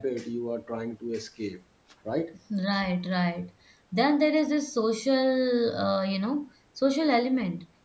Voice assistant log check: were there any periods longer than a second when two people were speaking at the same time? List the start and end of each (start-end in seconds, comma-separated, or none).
none